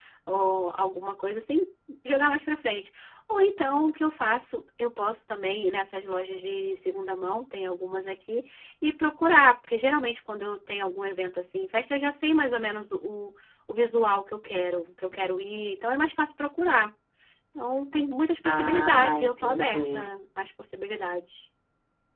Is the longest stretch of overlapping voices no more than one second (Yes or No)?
No